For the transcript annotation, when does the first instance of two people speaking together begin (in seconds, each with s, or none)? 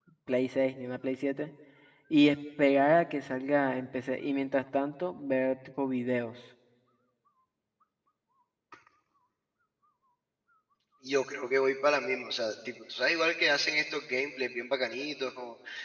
none